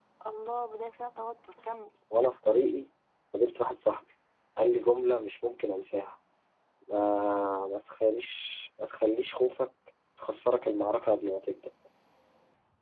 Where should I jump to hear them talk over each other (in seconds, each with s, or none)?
none